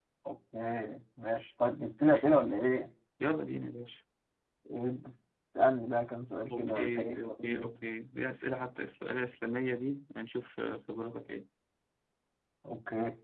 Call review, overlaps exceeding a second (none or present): present